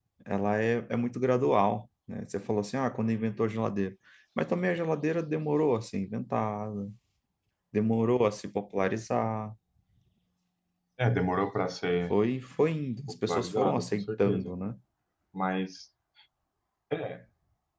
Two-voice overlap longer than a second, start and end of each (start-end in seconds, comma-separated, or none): 13.1-14.5